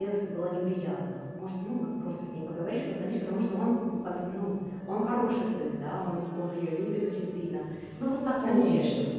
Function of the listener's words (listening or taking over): taking over